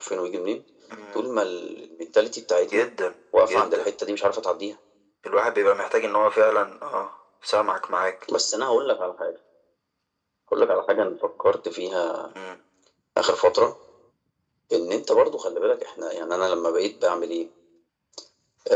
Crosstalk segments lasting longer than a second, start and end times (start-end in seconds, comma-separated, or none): none